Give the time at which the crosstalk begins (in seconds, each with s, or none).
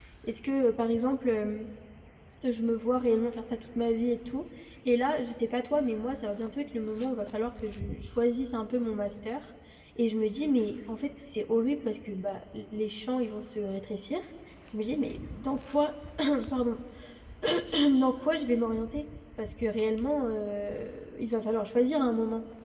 none